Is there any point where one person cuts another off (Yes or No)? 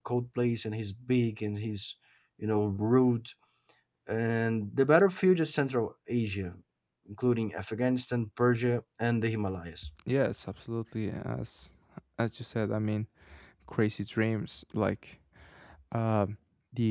No